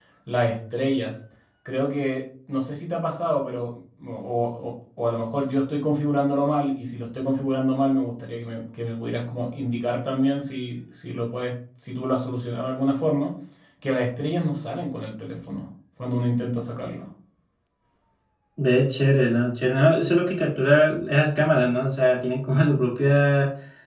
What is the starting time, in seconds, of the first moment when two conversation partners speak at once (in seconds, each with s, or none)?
none